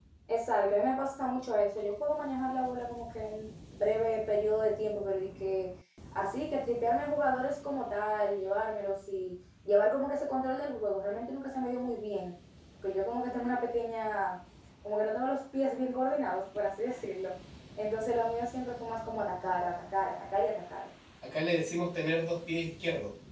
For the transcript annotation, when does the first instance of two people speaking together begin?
none

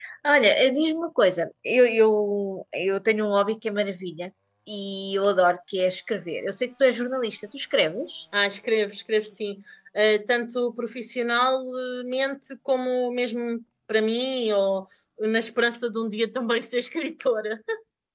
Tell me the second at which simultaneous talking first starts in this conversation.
none

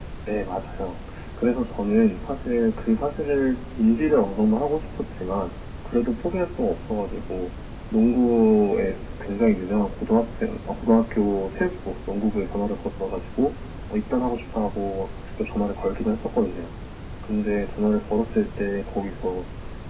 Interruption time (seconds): none

